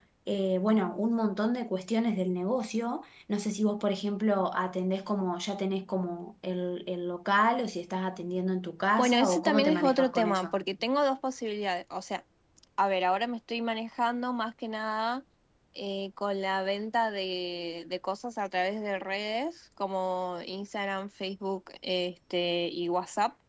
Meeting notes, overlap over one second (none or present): present